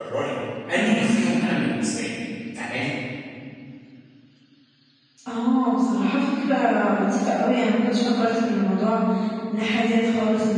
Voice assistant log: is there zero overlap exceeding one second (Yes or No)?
Yes